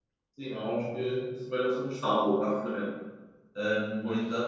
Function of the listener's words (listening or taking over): listening